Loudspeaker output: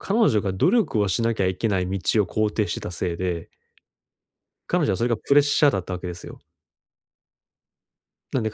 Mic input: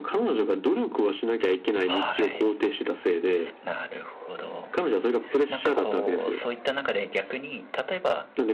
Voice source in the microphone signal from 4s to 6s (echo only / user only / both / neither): both